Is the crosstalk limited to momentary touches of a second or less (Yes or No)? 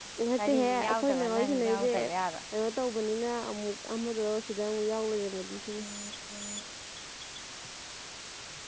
No